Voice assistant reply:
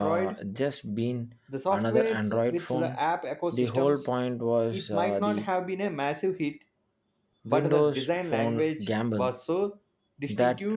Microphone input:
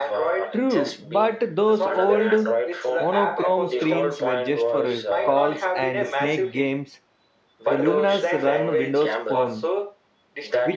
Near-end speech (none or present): present